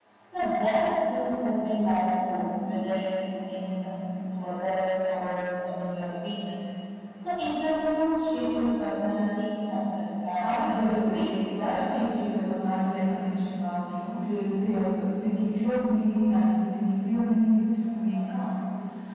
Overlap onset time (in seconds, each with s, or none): 10.4 s